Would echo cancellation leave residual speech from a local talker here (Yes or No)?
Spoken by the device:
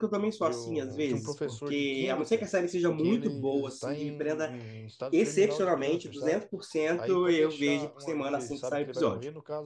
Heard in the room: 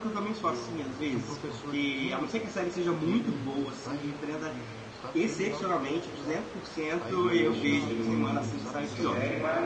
Yes